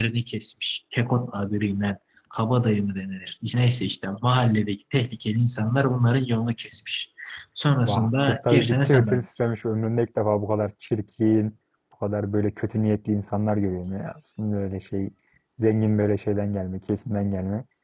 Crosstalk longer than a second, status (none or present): present